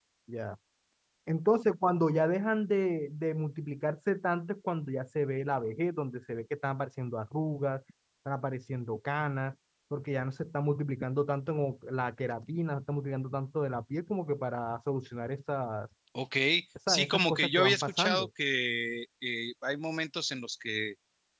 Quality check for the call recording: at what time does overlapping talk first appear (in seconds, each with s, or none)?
16.9 s